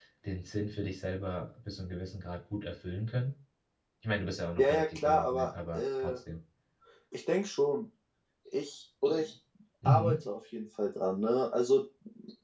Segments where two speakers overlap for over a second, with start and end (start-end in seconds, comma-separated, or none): 4.6-6.1